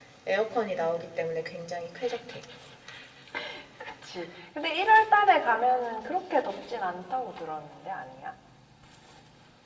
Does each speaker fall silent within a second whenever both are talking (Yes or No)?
Yes